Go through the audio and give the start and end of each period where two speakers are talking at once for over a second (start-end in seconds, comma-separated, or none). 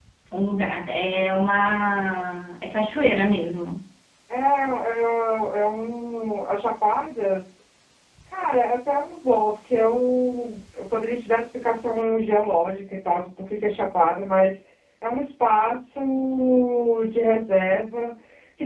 none